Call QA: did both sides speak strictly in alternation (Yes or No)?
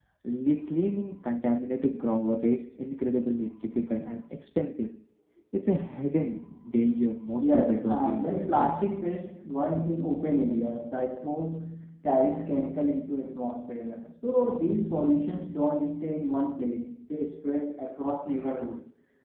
No